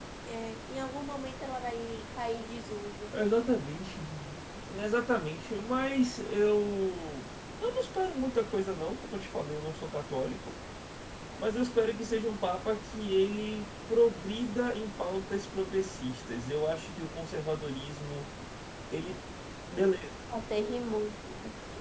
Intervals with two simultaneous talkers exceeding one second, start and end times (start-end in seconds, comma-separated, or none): none